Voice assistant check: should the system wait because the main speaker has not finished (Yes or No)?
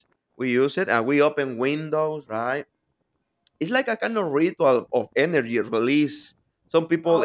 Yes